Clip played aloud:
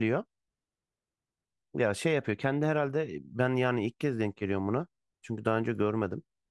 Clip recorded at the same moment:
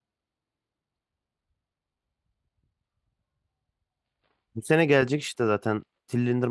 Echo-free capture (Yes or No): Yes